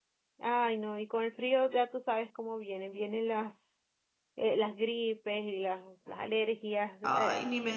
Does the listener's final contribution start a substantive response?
Yes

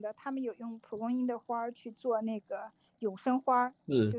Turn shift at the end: No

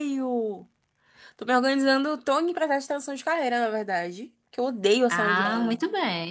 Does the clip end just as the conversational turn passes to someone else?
Yes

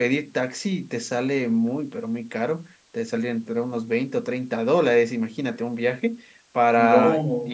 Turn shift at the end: No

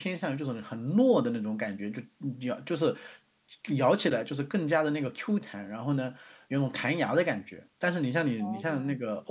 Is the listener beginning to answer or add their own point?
No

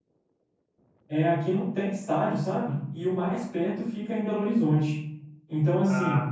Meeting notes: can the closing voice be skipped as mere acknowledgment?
Yes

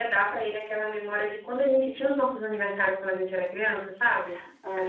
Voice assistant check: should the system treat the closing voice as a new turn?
No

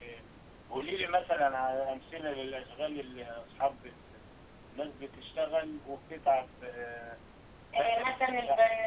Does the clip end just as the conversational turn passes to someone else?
Yes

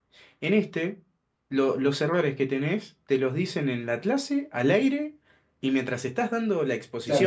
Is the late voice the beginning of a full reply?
Yes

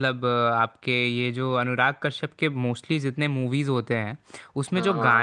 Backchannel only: Yes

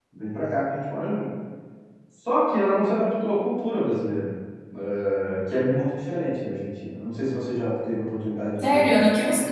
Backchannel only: No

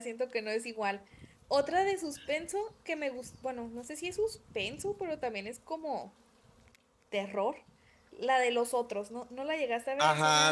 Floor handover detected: Yes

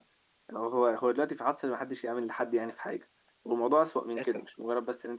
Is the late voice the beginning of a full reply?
No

